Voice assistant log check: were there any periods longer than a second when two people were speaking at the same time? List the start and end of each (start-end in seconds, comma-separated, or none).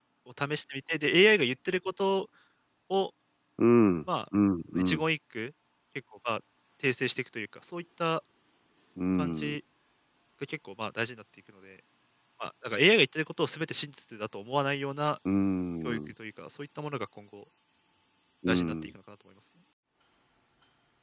none